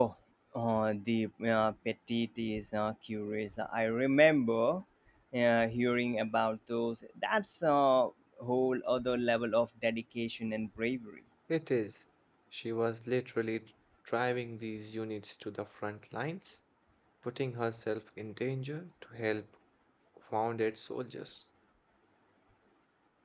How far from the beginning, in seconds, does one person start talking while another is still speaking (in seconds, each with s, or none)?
none